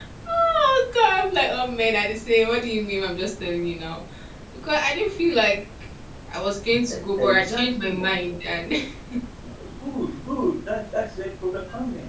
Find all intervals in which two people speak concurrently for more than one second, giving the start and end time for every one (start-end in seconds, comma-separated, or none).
6.9-8.1